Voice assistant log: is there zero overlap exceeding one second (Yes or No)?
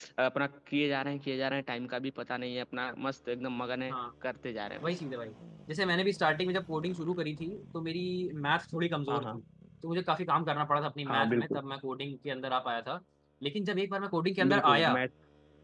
Yes